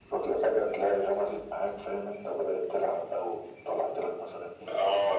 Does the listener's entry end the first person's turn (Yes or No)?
Yes